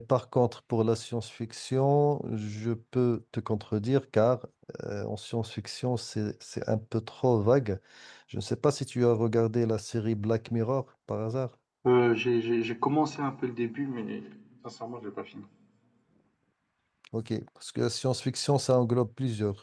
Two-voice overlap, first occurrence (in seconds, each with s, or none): none